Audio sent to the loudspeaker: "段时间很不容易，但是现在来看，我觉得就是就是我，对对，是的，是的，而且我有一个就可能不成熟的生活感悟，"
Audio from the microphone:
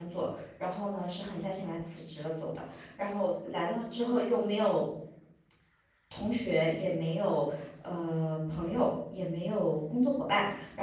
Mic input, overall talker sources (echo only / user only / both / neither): user only